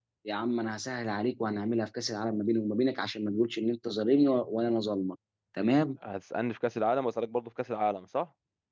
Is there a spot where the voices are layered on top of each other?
No

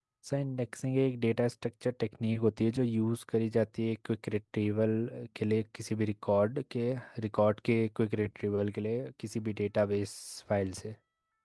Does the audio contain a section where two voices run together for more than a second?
No

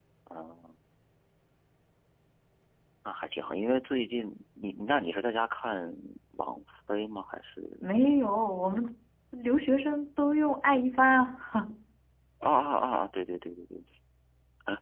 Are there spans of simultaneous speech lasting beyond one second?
No

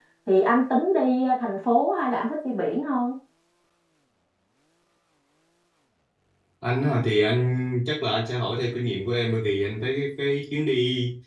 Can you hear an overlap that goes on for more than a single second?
No

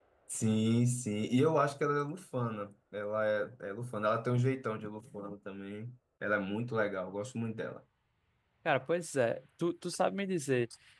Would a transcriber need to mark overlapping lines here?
No

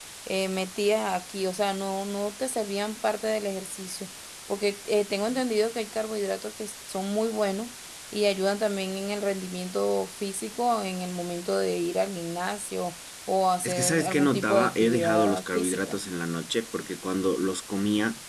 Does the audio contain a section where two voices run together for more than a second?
Yes, from 13.6 s

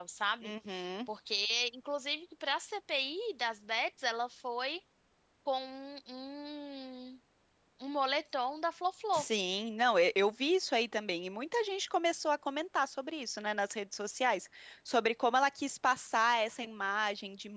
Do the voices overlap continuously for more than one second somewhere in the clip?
No

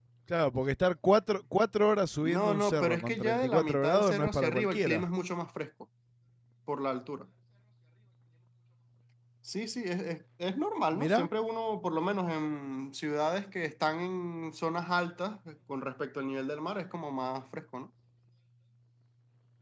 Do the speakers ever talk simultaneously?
Yes, from 2.2 s

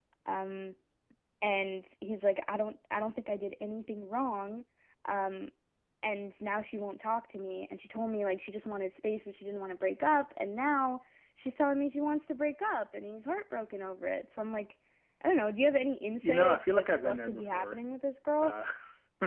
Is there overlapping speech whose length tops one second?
Yes, from 16.2 s

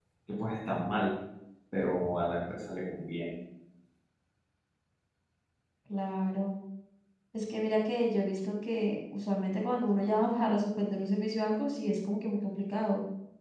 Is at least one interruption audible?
No

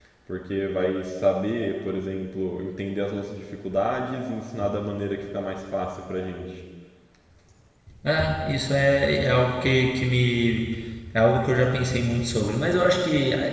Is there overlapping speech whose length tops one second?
No

